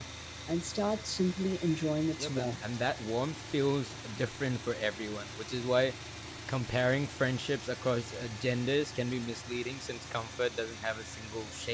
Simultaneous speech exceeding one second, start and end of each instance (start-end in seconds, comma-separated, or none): none